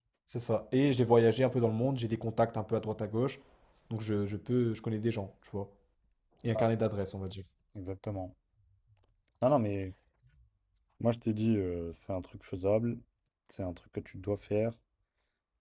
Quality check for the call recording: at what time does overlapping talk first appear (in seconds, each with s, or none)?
none